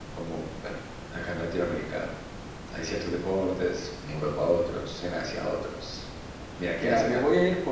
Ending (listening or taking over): taking over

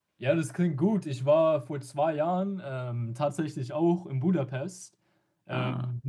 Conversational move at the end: listening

